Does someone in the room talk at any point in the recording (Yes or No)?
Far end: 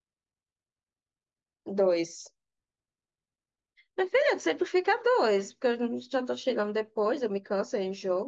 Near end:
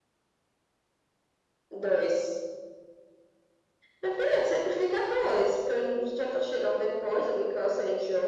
No